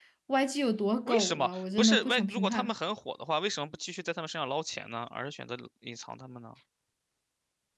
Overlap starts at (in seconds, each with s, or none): 1.1 s